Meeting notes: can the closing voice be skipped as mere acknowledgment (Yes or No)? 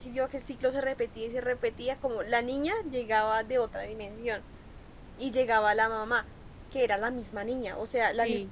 Yes